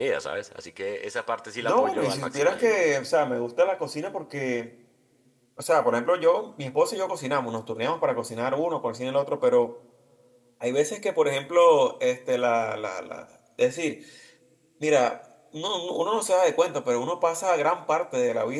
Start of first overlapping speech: 2 s

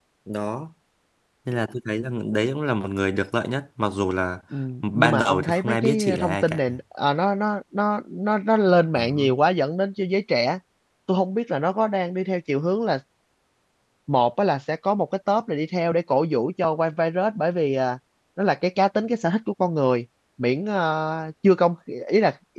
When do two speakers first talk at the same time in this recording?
5 s

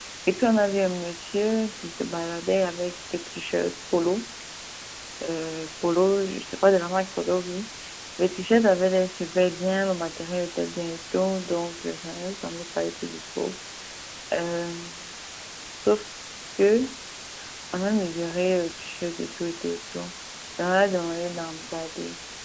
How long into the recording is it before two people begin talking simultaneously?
none

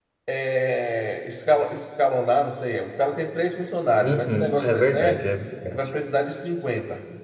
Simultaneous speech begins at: 4 s

